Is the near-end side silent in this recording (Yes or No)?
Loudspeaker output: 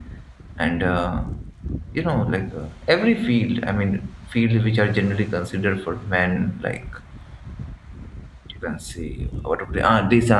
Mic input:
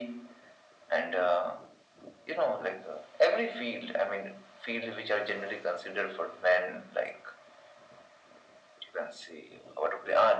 Yes